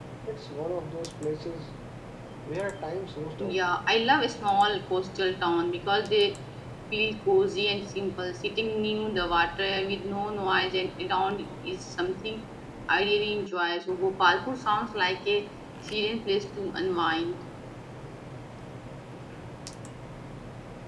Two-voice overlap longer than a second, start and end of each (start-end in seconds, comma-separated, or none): none